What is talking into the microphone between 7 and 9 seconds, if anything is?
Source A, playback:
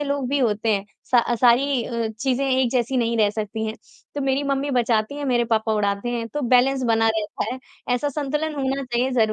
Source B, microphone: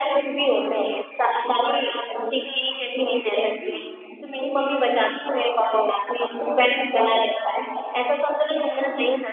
echo only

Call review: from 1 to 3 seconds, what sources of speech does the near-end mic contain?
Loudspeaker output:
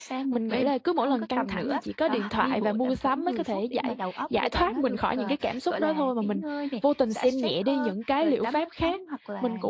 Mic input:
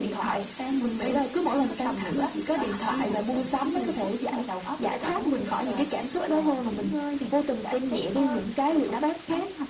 echo only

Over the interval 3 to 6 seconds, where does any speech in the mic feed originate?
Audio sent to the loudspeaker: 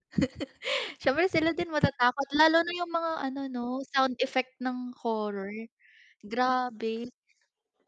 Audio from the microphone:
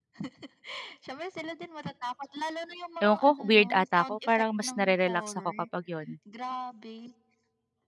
both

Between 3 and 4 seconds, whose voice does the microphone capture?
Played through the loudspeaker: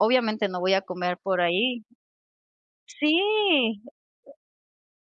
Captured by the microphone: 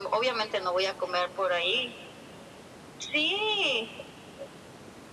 echo only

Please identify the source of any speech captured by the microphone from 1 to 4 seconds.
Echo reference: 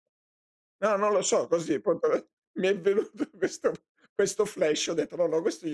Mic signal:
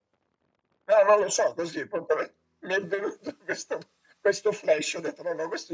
echo only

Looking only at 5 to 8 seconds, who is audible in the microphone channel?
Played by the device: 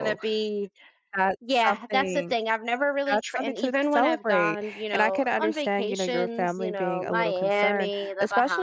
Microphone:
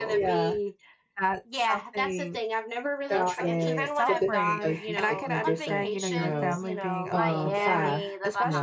both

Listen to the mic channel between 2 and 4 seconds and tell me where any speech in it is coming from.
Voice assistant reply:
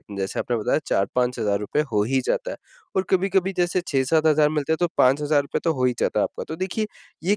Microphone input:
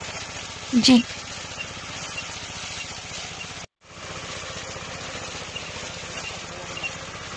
neither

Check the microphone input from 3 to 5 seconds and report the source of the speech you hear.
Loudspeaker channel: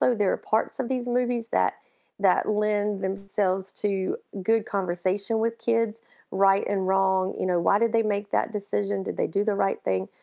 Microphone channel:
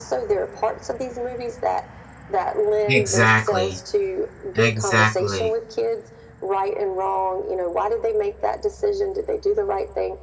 both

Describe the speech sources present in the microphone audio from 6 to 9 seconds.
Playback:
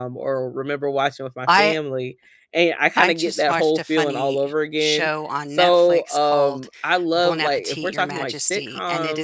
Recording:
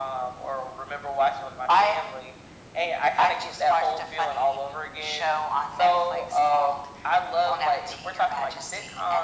echo only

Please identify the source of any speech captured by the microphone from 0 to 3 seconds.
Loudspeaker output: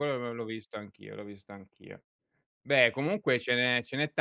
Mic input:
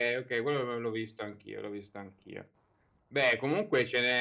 echo only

